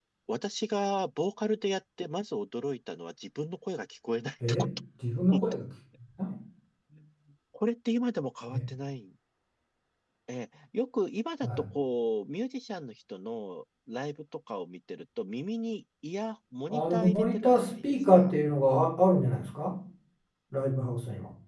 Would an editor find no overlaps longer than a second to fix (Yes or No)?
No